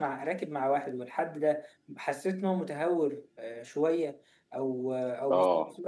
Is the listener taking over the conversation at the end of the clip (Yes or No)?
No